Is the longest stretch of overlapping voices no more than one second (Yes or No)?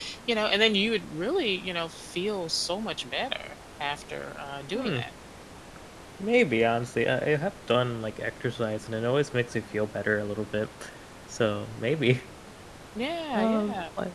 Yes